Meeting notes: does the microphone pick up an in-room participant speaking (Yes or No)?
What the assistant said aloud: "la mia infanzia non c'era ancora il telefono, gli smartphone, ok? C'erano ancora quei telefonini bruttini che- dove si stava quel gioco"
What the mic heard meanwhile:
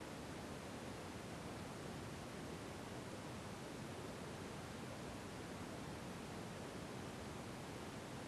No